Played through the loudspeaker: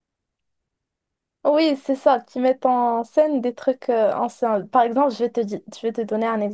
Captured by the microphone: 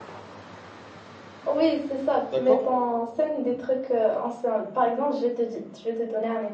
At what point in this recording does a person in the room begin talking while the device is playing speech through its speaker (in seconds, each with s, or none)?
2.3 s